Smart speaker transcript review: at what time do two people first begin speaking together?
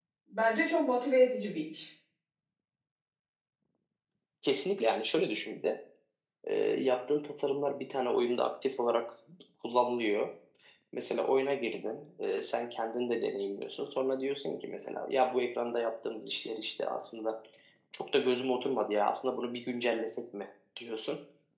none

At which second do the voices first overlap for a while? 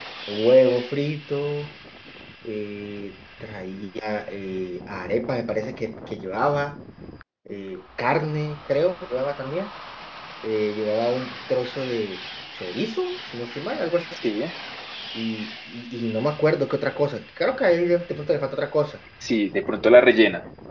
none

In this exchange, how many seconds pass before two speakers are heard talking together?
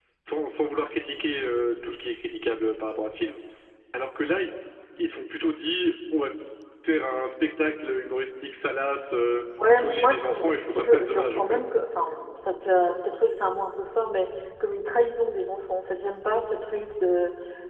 9.6 s

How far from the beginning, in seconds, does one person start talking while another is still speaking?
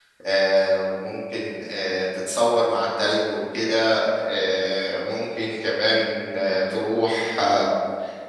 none

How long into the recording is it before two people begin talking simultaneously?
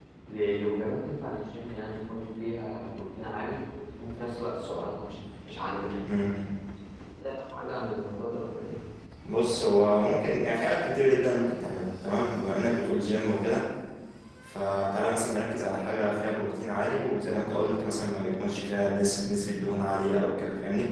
none

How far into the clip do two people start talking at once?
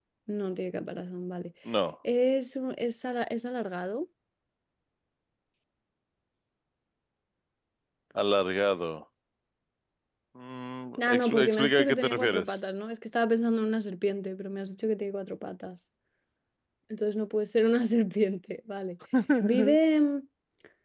11.0 s

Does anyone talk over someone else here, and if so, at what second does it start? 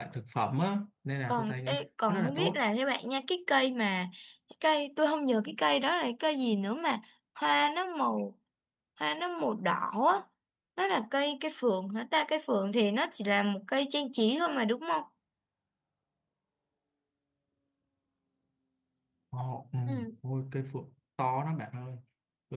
1.3 s

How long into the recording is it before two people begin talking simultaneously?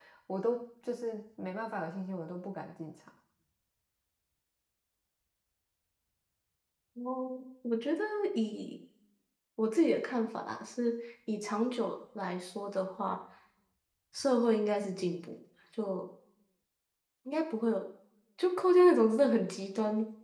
none

